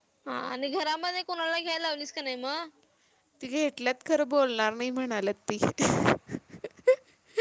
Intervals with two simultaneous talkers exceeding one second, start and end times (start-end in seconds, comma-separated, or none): none